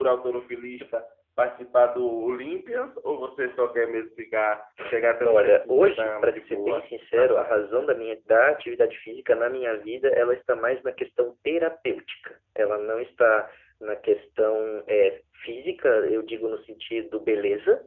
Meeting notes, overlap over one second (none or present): present